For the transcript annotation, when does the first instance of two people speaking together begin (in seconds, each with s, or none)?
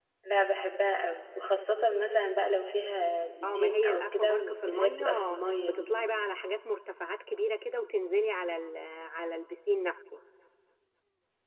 3.4 s